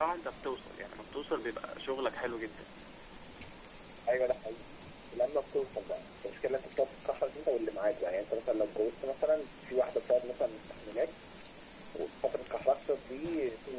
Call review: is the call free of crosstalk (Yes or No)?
Yes